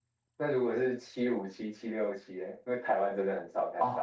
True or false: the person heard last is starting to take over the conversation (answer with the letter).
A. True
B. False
A